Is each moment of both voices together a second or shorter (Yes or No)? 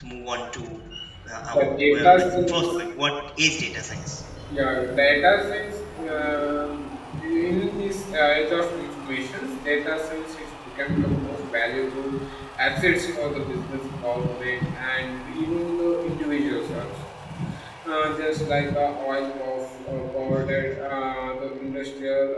No